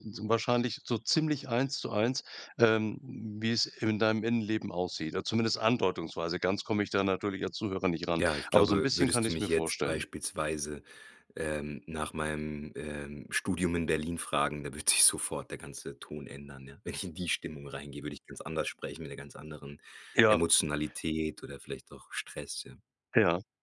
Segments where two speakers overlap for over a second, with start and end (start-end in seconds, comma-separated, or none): 8.2-10.0